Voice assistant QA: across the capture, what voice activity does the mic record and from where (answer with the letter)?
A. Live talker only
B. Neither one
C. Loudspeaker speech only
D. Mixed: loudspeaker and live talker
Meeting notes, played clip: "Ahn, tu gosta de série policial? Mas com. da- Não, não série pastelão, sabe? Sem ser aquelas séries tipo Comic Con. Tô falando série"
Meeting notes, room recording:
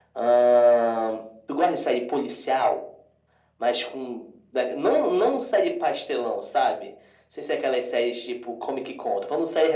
C